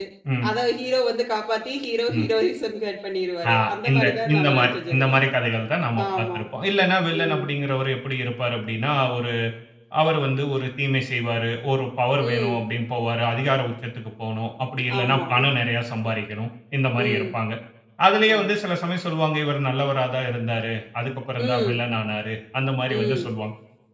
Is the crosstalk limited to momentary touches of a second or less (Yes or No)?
No